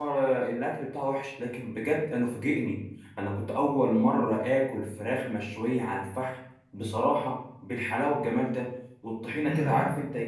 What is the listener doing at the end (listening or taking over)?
listening